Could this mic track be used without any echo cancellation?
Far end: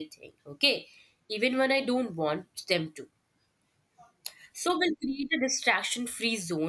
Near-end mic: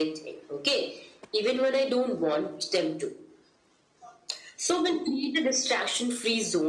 No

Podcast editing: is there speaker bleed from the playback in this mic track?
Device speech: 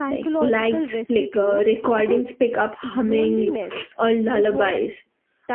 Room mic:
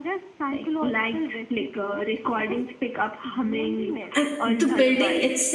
Yes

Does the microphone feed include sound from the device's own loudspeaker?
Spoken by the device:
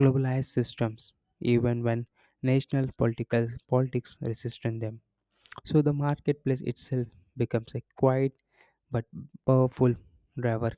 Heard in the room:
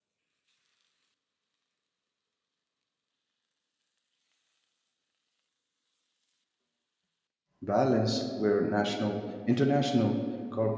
No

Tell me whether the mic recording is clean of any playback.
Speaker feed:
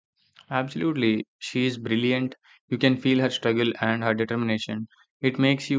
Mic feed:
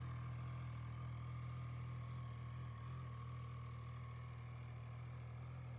Yes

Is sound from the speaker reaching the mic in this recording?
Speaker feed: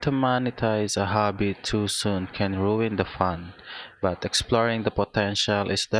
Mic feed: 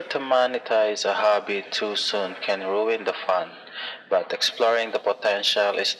Yes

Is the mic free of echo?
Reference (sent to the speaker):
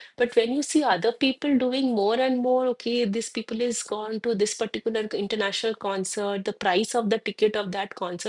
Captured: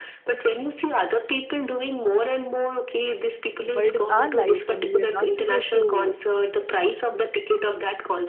No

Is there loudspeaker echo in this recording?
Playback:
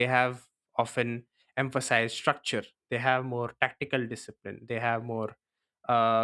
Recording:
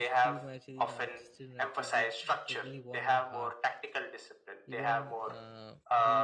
Yes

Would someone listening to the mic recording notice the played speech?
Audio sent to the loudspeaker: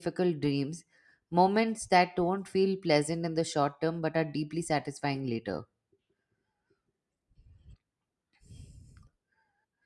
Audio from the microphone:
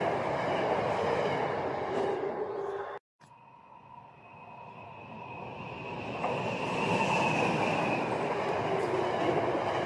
No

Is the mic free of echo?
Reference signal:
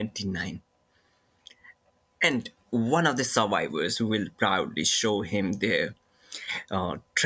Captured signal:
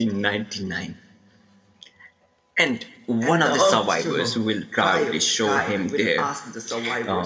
No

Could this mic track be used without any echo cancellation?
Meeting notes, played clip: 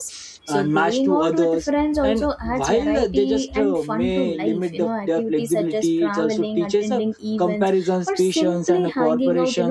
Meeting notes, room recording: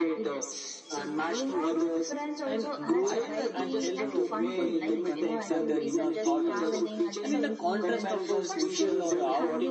No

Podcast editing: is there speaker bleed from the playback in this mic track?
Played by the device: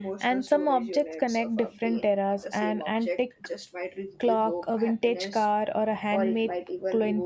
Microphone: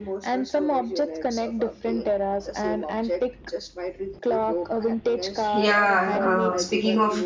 Yes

